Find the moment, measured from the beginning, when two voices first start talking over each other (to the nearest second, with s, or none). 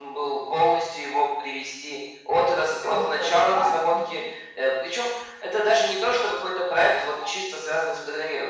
3 s